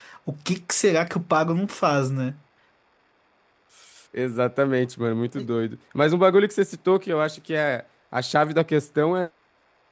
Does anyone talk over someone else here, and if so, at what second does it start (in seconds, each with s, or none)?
none